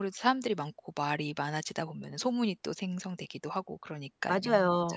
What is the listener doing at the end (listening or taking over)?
taking over